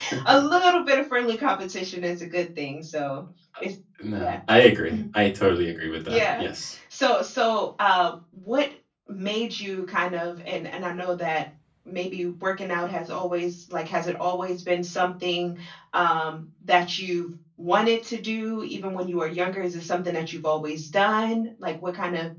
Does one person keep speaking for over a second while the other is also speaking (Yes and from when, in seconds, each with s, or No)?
No